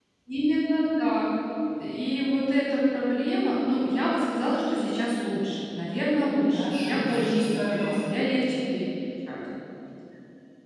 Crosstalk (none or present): present